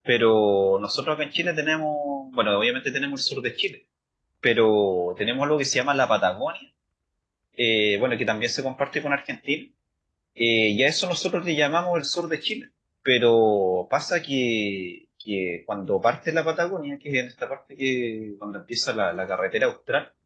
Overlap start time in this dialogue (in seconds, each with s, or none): none